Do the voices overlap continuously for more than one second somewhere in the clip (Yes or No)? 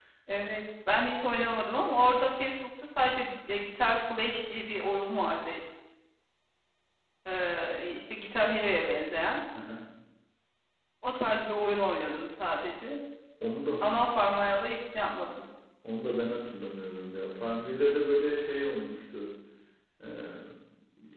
No